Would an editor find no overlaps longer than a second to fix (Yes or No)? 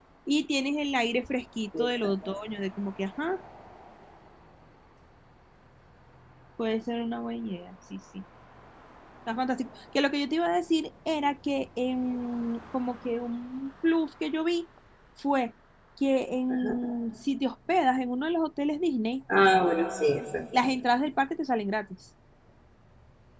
Yes